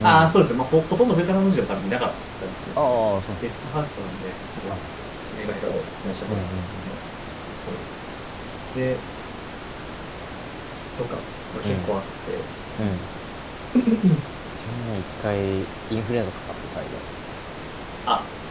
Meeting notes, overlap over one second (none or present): none